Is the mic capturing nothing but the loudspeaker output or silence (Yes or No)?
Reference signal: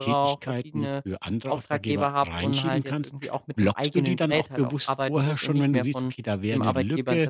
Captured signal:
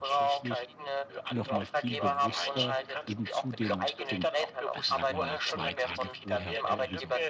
No